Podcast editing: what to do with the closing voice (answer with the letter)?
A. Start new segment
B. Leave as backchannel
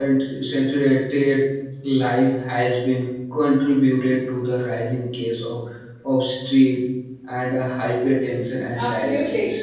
A